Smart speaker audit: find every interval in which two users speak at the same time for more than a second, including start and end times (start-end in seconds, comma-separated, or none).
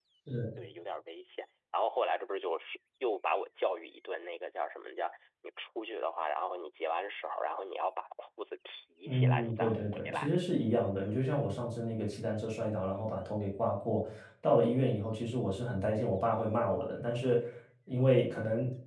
9.1-10.3